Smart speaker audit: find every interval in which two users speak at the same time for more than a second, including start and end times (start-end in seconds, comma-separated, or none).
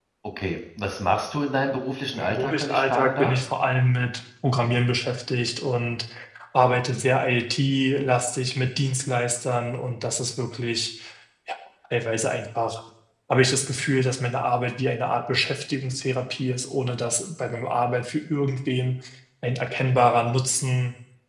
2.1-3.3